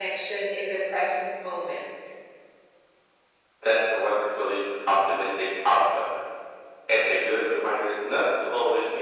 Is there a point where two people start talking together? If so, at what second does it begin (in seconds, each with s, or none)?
none